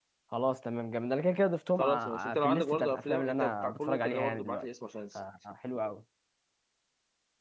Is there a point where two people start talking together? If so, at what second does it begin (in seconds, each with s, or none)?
1.8 s